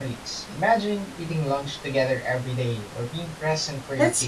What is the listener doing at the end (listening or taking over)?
taking over